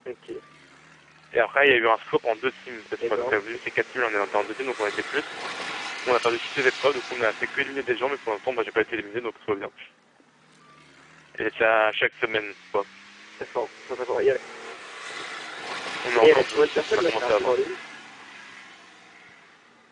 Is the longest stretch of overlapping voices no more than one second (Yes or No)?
No